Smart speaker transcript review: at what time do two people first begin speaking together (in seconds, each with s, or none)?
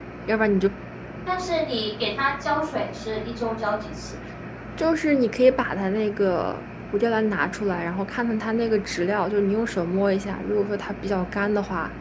none